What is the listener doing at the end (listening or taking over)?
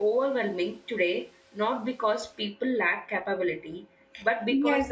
taking over